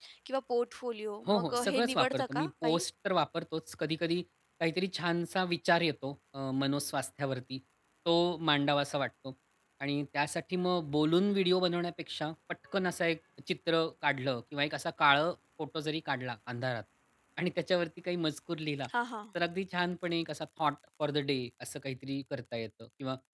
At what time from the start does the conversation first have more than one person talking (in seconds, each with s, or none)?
1.3 s